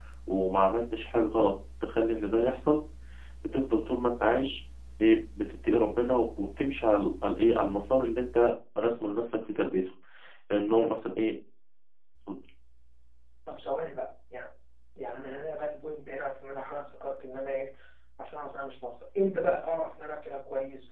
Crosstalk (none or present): none